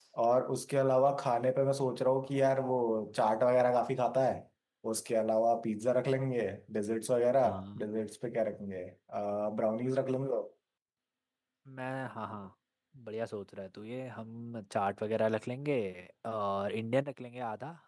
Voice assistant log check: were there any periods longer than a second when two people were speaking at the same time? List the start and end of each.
none

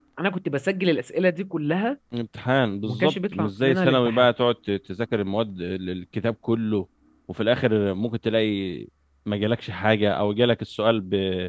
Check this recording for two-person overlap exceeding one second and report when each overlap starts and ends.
2.8-4.3

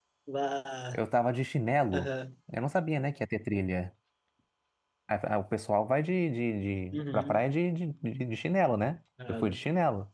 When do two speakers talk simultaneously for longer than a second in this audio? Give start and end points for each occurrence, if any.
none

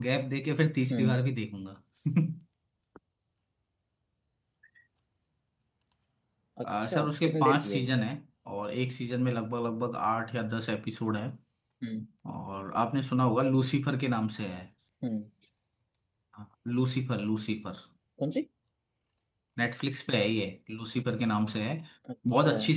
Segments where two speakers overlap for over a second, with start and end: 6.6-7.9

